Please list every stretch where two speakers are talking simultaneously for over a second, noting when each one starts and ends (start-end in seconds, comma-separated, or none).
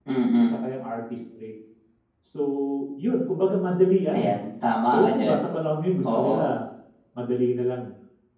none